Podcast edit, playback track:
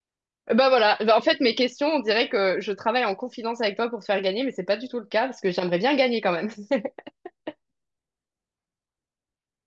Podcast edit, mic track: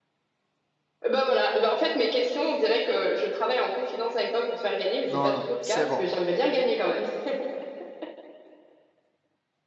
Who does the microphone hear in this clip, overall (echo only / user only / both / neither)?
both